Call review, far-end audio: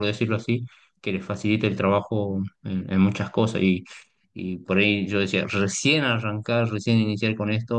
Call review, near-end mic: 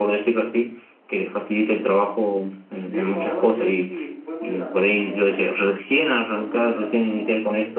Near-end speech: present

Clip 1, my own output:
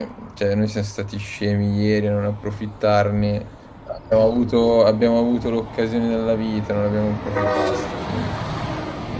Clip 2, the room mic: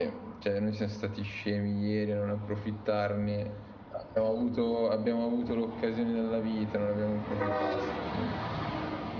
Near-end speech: none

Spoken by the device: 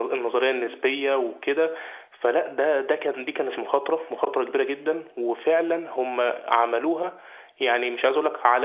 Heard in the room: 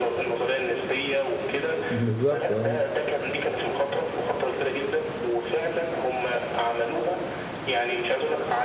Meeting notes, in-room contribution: present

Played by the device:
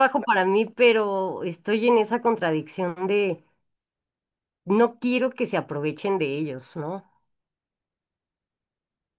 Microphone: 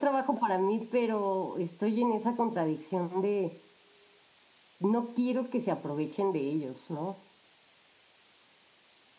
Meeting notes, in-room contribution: none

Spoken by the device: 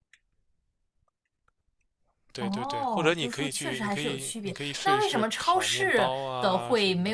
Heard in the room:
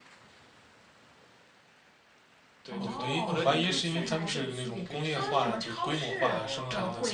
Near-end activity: present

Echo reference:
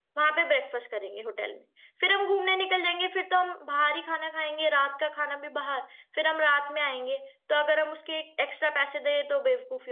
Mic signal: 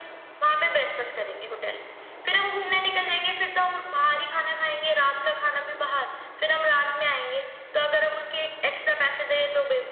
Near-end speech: none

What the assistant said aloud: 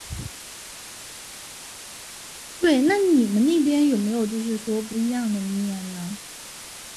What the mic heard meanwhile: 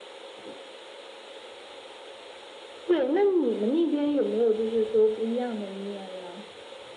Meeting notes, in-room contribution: none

